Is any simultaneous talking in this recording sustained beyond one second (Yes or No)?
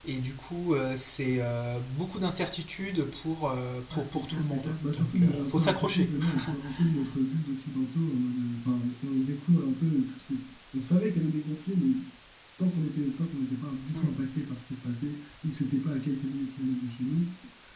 Yes